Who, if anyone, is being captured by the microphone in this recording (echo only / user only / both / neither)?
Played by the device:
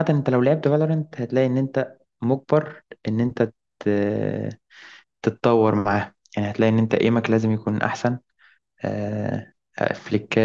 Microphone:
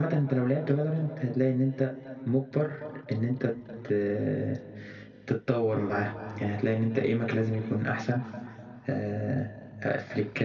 echo only